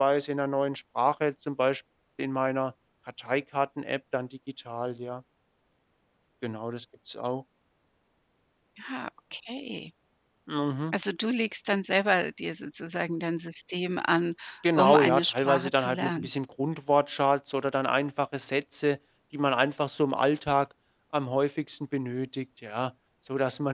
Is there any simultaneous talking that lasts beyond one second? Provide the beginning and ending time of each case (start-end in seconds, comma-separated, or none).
14.8-16.3